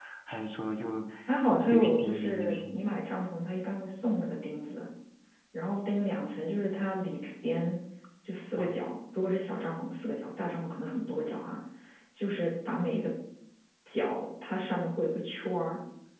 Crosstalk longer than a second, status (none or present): present